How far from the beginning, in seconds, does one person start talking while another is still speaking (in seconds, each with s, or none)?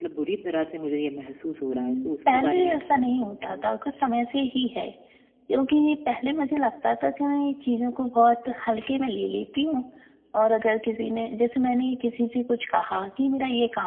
1.7 s